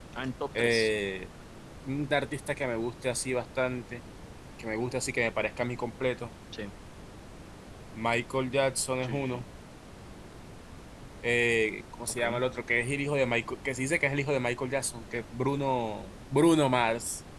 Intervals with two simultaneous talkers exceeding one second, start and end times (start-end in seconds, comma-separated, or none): none